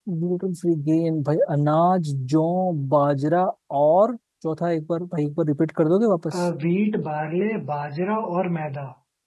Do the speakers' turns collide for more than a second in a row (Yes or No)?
No